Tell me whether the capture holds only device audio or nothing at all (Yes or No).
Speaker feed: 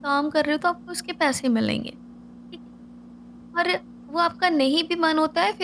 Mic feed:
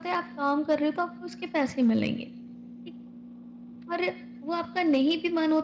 Yes